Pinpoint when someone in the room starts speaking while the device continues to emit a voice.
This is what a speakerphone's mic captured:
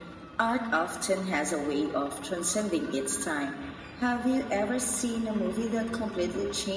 none

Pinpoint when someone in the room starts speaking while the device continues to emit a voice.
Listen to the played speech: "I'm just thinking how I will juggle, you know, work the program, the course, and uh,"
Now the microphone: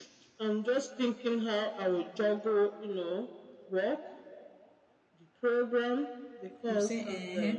6.6 s

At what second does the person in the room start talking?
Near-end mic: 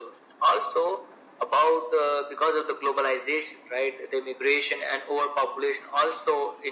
none

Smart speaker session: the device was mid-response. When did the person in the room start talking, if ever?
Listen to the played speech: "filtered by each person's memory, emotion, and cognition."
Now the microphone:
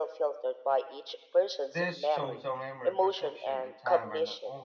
1.7 s

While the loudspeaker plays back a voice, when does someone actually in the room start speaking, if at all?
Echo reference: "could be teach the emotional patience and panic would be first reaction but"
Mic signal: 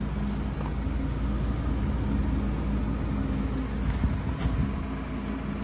none

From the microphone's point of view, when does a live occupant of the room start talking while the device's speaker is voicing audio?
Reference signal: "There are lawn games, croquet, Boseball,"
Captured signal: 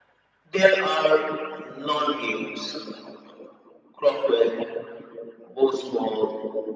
none

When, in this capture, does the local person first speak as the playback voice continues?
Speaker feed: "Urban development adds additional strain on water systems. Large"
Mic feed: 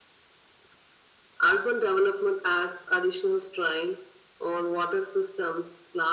none

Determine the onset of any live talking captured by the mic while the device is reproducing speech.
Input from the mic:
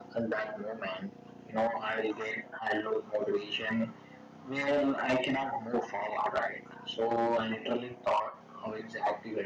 none

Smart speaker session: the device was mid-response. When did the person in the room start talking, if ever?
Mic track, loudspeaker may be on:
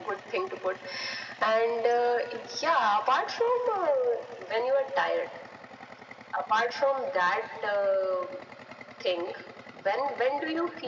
none

